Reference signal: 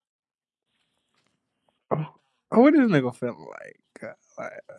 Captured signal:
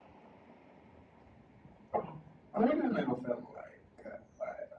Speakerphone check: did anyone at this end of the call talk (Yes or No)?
No